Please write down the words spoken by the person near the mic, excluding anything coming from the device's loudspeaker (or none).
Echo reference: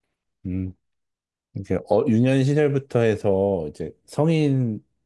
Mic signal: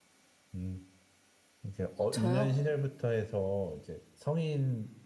저요?